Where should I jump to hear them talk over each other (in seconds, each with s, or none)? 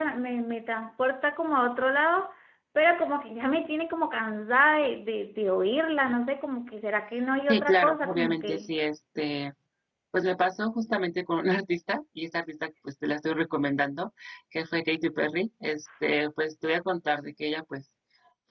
7.5 s